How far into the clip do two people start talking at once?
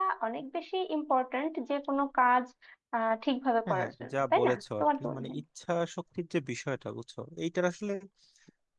4 s

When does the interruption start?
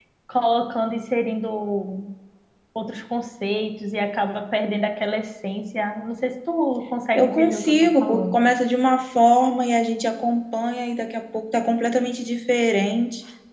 7 s

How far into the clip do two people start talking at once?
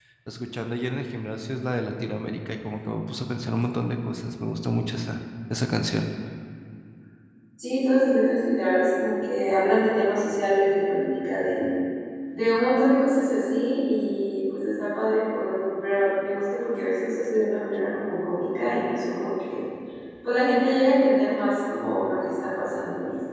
none

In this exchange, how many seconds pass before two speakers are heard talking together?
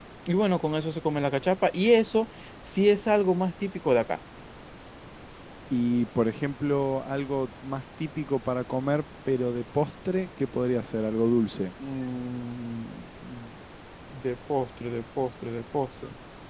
none

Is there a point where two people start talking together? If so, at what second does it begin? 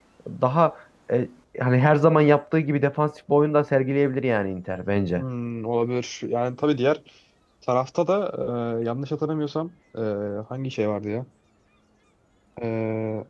none

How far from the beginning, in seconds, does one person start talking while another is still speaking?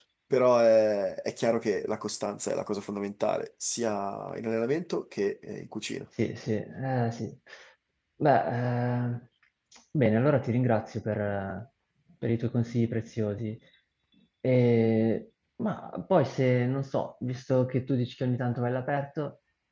none

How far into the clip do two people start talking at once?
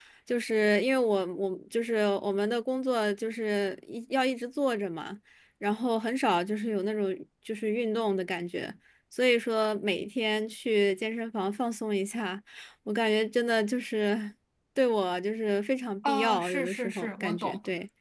16 s

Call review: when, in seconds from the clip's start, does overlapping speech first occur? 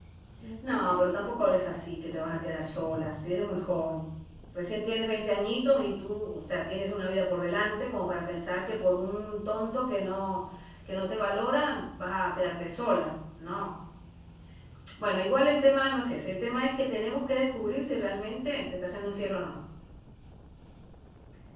1 s

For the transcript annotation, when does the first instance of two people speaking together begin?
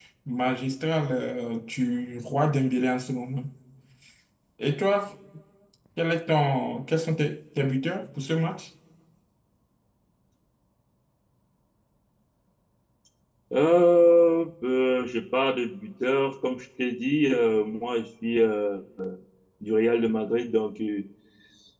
none

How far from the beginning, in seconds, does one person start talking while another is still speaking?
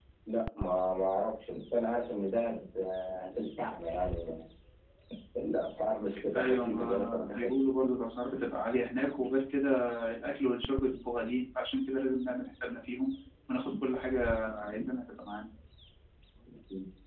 6 s

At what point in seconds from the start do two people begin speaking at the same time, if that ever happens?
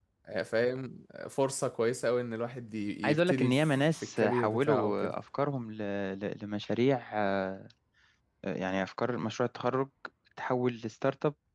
3 s

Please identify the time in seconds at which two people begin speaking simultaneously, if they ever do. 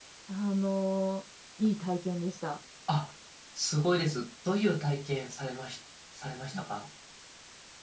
none

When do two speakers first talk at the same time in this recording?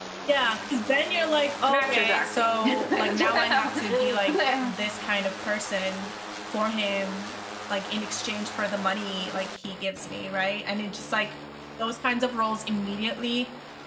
2 s

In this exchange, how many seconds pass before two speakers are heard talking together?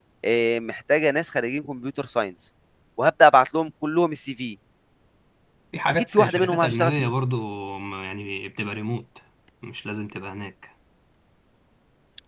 6 s

